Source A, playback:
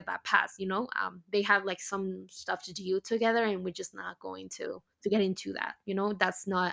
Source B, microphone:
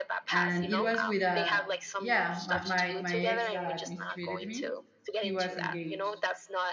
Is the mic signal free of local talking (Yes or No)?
No